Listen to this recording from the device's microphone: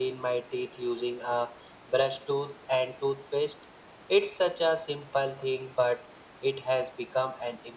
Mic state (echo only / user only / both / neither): echo only